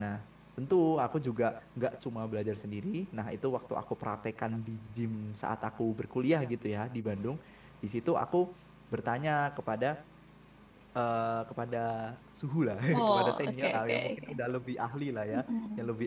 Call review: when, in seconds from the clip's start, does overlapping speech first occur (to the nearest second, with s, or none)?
13 s